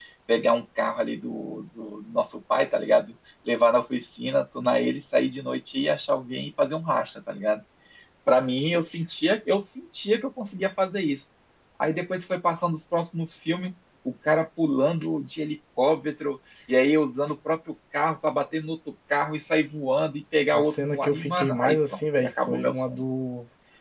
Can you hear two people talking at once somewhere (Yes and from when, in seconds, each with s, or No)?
Yes, from 20.5 s